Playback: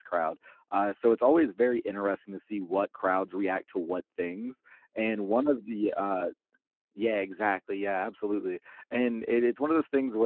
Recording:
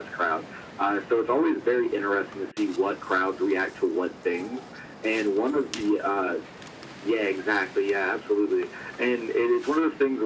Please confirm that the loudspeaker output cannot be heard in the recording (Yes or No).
No